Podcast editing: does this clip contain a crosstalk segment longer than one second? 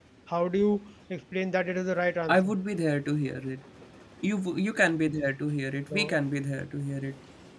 No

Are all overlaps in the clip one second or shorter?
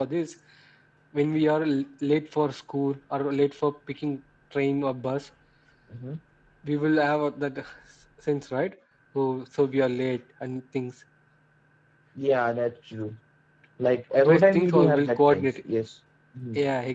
No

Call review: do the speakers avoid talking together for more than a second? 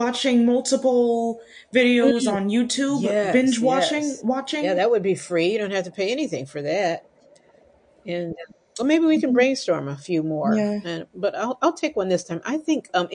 No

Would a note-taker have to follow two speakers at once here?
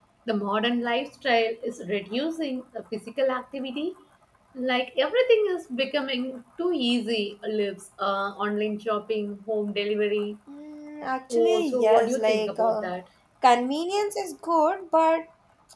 Yes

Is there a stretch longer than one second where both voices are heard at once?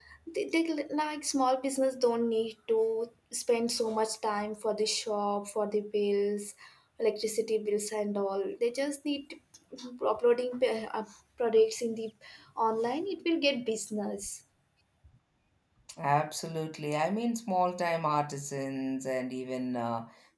No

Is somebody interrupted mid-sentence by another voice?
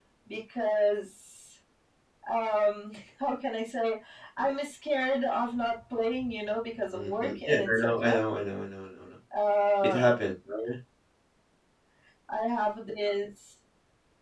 Yes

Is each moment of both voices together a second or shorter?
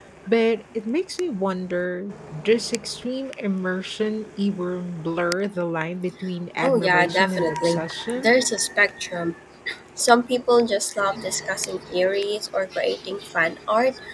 No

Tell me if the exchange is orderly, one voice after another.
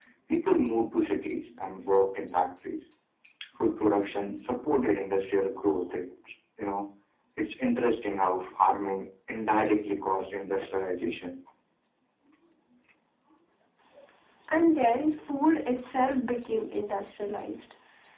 Yes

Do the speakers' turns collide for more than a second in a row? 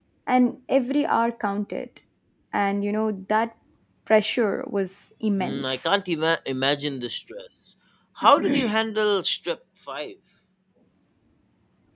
No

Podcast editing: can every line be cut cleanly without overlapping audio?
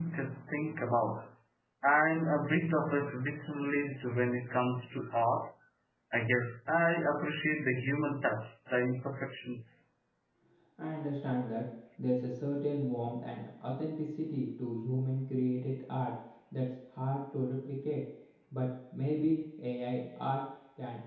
Yes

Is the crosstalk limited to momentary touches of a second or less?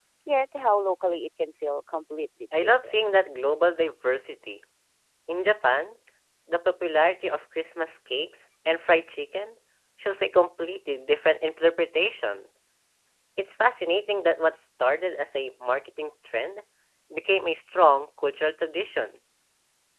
Yes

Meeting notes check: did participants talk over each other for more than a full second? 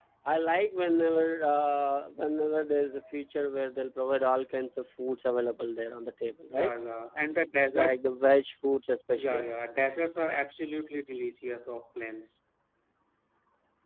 No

